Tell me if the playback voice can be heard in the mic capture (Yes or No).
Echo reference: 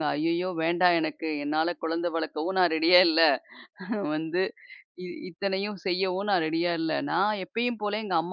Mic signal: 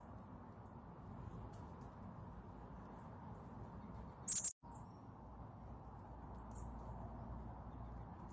No